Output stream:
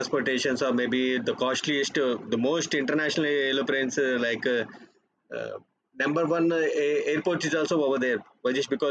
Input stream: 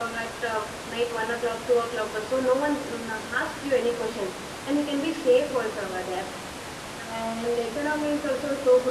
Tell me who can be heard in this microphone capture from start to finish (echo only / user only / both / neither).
user only